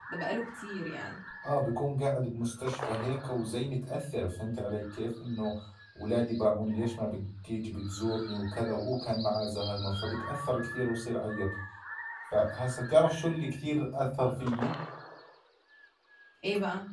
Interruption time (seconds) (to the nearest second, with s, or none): none